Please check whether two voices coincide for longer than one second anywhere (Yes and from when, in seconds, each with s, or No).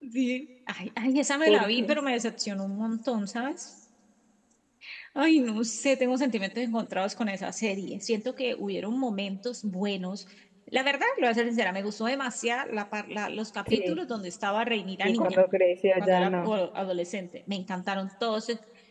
No